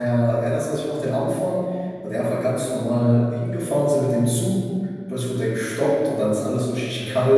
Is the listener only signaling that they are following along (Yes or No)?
Yes